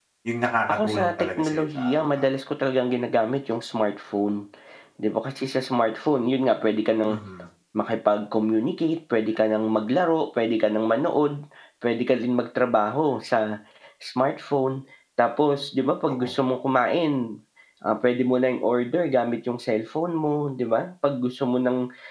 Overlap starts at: 0.7 s

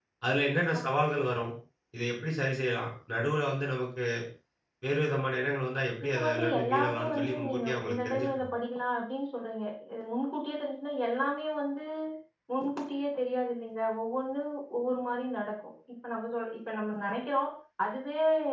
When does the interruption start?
6.1 s

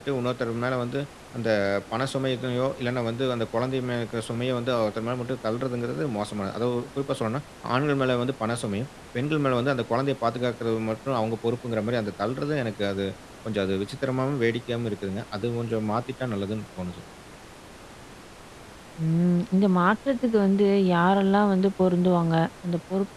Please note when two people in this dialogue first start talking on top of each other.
none

